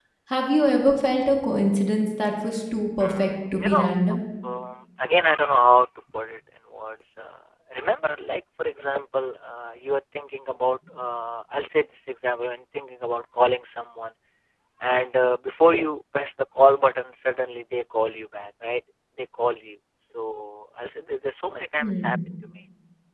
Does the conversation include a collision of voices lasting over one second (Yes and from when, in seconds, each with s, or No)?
Yes, from 3.0 s